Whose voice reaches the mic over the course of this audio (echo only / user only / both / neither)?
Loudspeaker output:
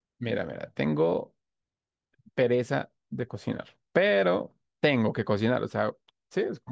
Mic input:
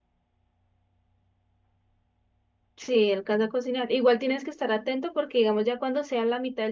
user only